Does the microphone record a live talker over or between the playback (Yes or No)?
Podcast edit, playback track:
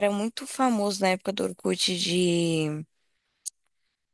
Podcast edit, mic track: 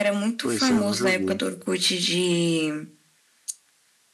Yes